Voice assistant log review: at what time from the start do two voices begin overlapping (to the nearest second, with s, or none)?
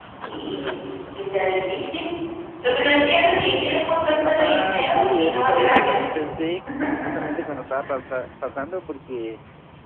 4 s